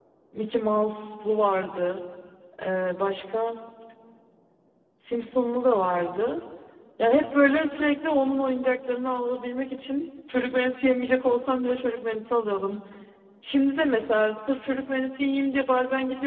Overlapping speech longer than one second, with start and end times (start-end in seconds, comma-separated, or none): none